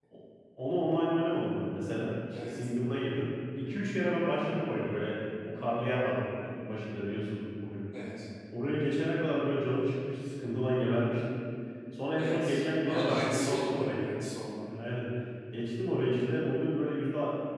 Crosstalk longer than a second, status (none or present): present